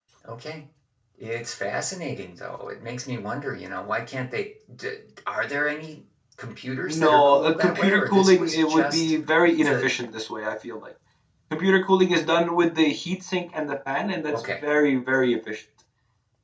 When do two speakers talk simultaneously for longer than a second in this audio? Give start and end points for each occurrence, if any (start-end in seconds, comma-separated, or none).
6.9-9.1